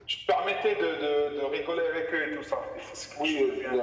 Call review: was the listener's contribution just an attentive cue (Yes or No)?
No